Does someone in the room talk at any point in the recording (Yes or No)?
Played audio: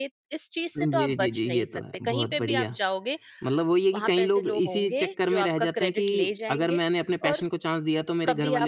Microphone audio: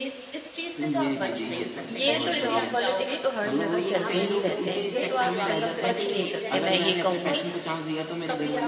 Yes